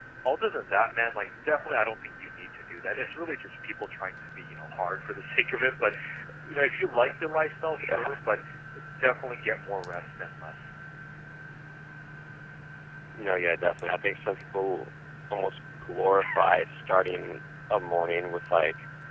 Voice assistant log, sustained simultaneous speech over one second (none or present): none